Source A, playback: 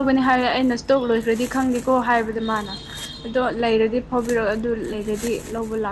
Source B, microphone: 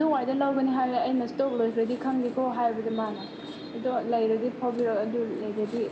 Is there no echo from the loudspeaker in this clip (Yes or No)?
No